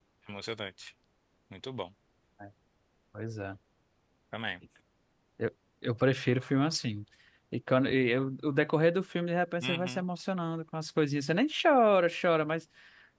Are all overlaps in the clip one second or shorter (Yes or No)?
Yes